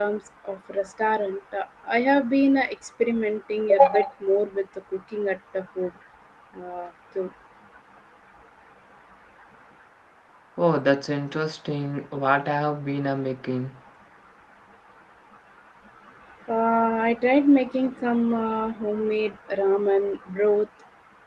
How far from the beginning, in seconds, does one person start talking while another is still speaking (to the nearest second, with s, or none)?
none